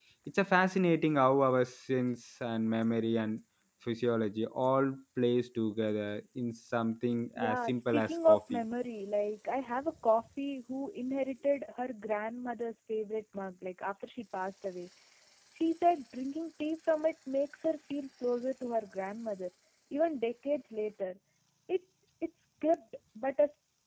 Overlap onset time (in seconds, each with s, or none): 7.4 s